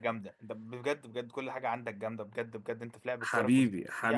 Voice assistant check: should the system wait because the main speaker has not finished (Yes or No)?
No